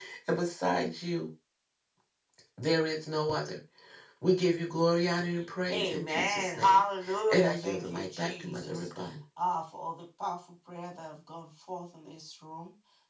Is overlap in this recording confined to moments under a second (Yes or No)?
No